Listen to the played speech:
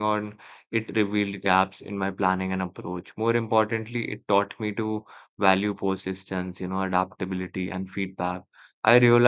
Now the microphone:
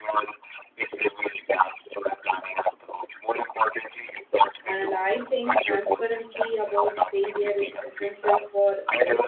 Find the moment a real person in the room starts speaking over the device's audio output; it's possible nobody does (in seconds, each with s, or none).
4.6 s